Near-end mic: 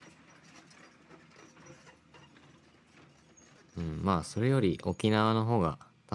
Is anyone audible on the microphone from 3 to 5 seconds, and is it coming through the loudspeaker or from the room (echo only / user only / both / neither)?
user only